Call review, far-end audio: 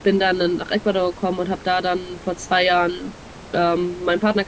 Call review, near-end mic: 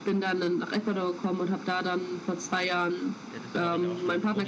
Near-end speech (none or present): present